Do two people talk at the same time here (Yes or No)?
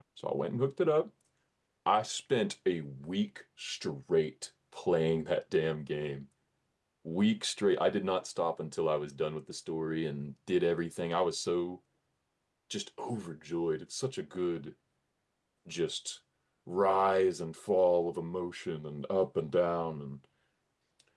No